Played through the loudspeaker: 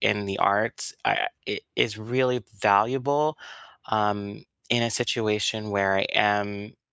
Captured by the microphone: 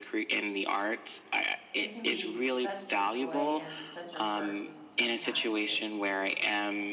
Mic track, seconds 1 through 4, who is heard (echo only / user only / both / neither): both